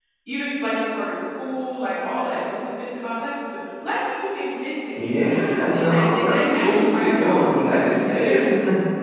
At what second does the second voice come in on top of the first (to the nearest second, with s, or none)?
5 s